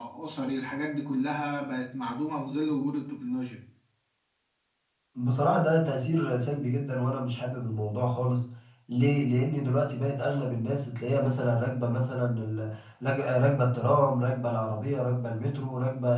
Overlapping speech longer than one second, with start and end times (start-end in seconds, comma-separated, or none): none